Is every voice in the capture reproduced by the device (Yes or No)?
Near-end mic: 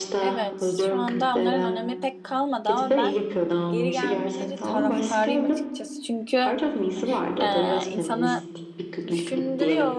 No